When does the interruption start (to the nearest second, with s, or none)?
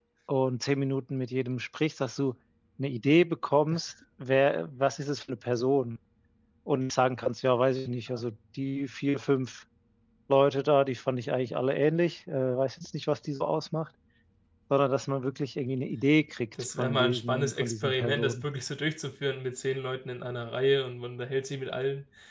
17 s